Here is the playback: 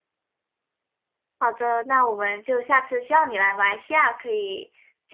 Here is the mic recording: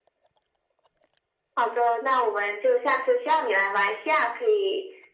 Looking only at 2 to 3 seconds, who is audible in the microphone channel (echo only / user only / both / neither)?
echo only